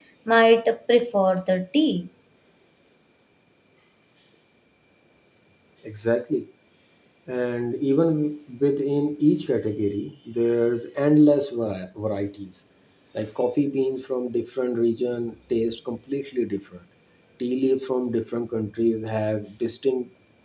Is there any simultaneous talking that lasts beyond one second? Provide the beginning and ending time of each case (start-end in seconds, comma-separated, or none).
none